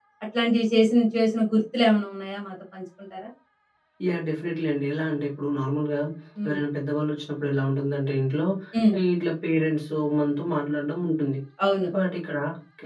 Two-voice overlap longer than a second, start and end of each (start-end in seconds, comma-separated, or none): none